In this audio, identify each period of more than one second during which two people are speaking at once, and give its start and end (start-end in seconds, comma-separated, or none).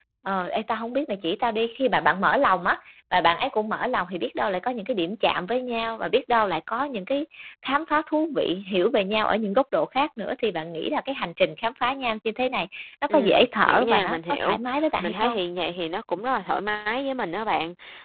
13.1-14.6